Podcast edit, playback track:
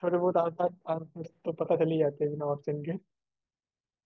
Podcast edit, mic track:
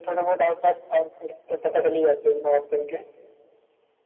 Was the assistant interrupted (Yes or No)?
No